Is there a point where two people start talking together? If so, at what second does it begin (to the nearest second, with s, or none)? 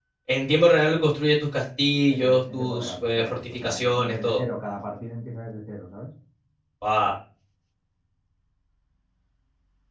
2 s